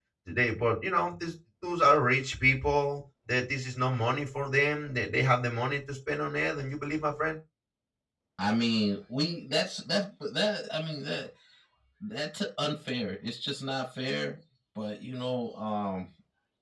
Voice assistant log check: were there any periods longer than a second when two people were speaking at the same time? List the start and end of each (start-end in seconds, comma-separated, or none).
none